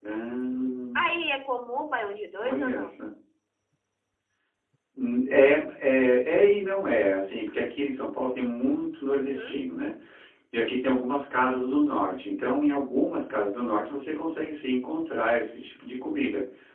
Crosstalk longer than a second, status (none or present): none